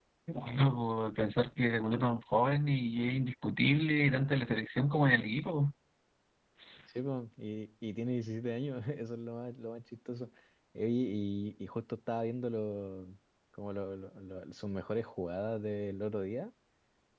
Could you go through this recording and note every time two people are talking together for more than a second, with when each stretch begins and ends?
none

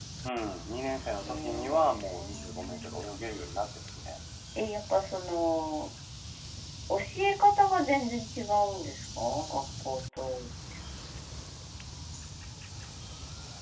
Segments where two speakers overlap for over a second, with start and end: 1.2-3.0

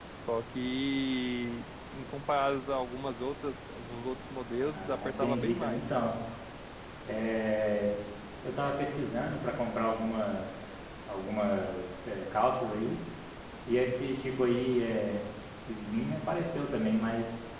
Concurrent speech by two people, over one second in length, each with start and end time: 4.6-5.9

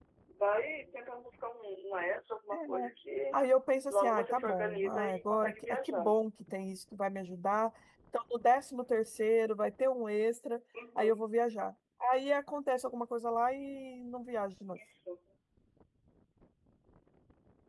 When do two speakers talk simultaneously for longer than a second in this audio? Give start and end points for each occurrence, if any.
3.9-6.1

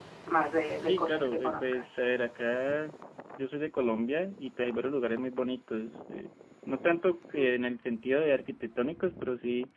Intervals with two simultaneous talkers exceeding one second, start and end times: 0.8-2.0

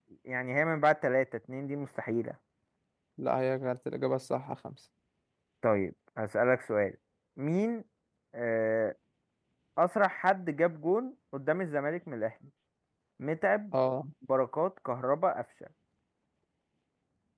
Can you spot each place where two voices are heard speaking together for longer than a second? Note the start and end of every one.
none

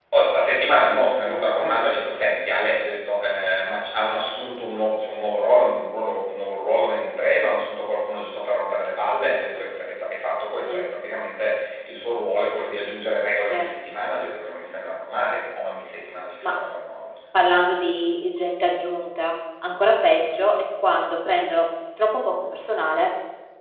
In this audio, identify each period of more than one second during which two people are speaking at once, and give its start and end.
none

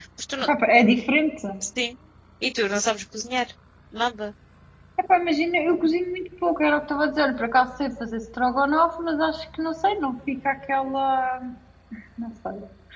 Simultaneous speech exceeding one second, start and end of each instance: none

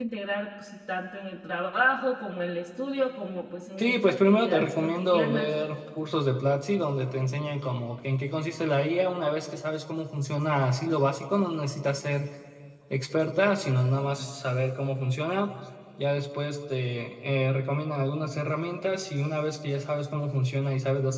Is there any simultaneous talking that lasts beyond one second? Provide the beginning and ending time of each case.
3.8-5.5

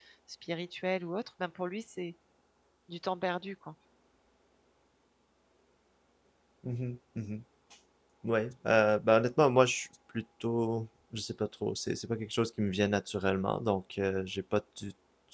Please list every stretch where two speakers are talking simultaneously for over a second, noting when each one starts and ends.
none

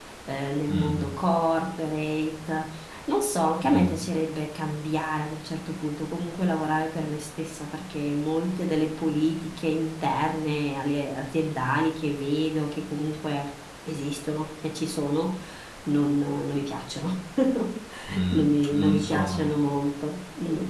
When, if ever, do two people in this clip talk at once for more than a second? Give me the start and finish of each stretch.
18.3-19.6

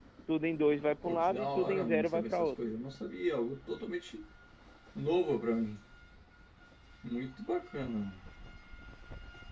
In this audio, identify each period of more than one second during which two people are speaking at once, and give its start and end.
1.0-2.5

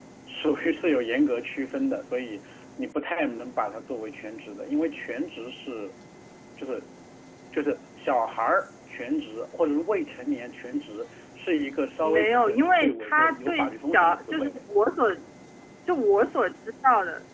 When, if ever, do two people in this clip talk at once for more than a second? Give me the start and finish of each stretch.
12.0-14.6

